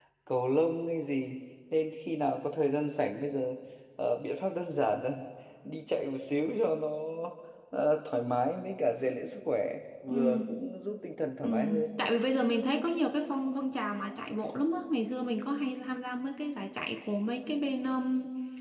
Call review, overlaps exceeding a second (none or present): none